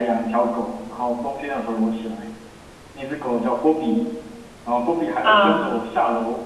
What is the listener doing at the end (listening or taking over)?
listening